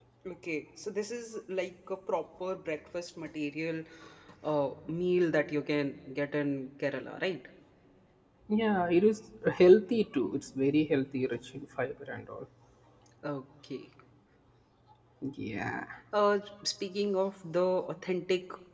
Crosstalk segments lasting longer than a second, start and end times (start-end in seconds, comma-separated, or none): none